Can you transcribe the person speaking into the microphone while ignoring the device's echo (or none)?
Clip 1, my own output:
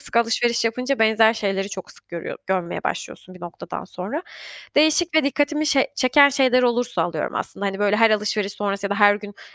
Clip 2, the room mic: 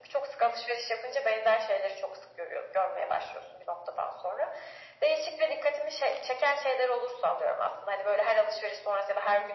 none